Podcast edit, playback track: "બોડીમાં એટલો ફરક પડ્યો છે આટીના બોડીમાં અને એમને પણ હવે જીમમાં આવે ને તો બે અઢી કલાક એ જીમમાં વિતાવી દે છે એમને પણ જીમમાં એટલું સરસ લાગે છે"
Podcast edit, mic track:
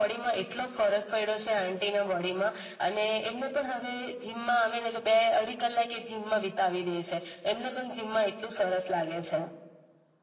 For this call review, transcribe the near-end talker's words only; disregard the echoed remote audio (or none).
none